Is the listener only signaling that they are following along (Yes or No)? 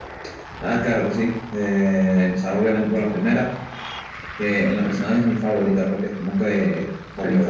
Yes